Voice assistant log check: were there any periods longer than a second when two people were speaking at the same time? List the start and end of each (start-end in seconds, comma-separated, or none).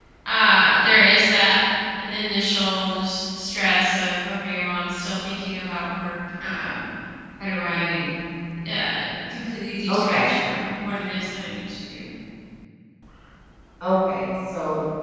none